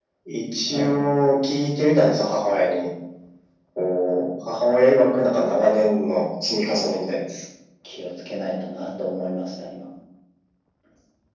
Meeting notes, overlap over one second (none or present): none